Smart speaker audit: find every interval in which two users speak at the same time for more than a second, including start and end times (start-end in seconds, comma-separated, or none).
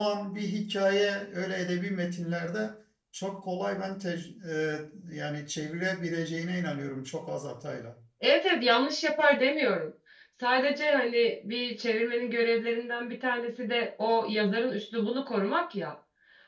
none